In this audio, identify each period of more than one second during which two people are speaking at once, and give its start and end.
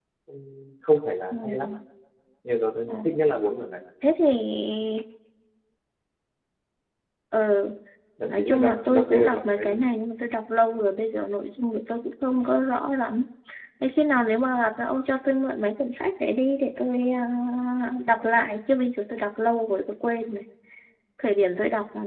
8.3-9.8

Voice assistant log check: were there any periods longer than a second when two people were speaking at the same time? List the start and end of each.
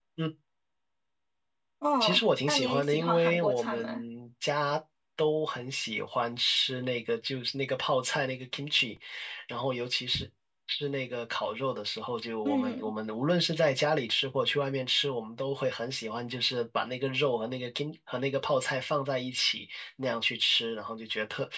2.0-4.0

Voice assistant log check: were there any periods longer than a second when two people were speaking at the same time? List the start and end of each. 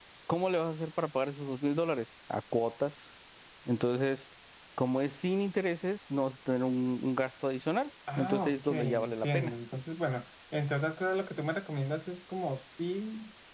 8.2-9.5

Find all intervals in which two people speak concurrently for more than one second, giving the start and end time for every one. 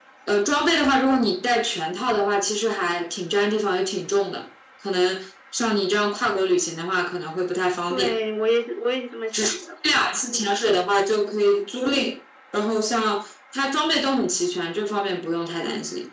none

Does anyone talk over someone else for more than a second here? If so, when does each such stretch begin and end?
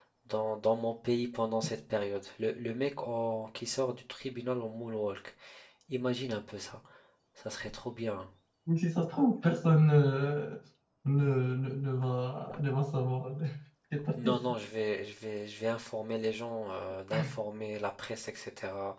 none

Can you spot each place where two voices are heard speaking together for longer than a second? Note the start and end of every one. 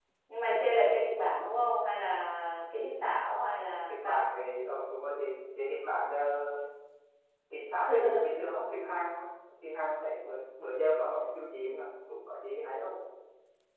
none

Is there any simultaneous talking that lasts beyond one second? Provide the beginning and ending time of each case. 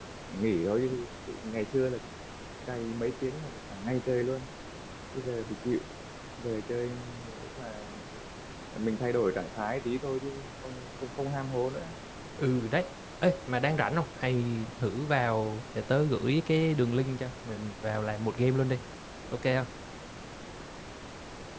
none

